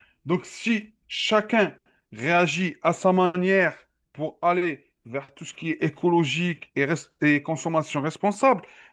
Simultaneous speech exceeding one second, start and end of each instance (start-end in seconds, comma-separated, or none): none